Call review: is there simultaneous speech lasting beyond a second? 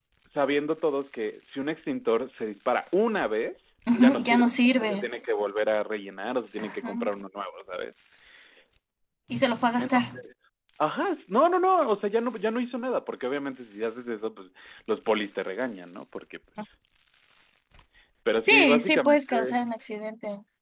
Yes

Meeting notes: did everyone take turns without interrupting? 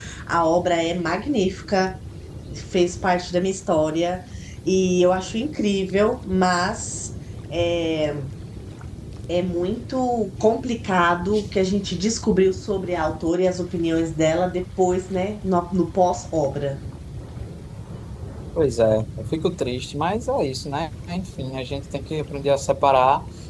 Yes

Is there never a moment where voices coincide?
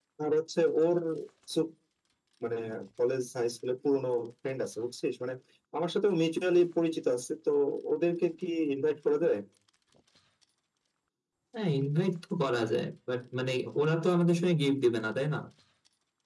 Yes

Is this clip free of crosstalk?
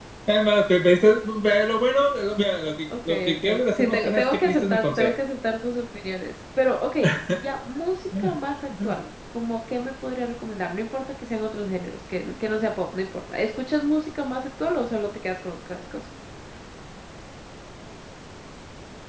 No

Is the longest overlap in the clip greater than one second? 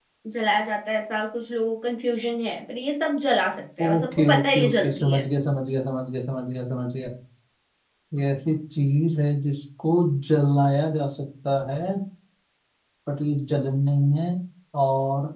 Yes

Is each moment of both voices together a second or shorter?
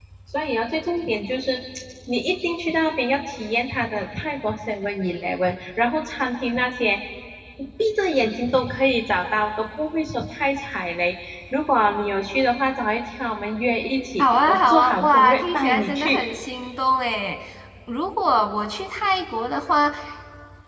No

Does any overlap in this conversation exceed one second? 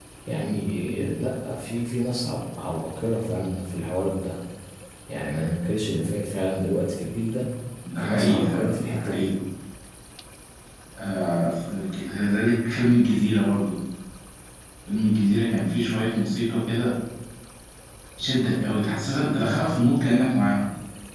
Yes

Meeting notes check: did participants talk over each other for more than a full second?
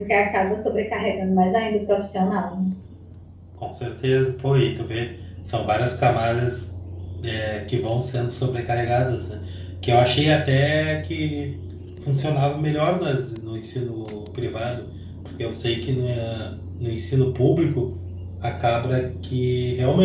No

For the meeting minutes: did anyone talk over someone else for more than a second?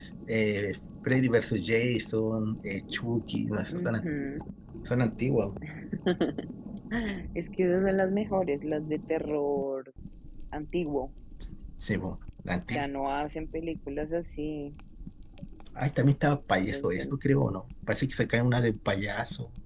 No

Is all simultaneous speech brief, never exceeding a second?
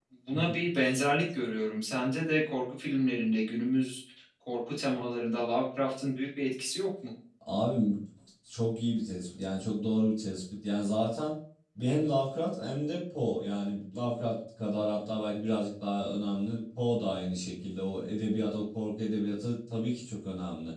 Yes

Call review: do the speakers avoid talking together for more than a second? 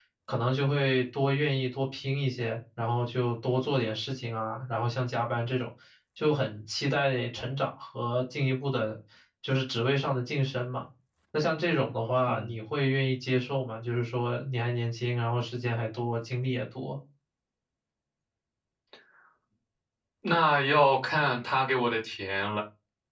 Yes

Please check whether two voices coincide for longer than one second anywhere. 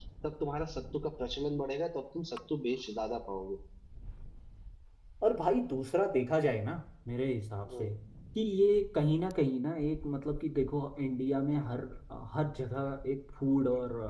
No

